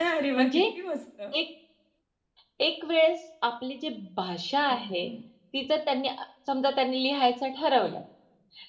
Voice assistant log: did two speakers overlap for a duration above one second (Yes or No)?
No